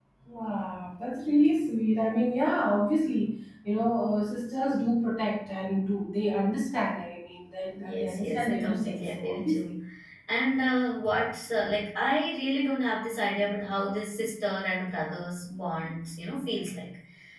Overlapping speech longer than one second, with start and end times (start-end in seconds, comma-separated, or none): 7.8-9.8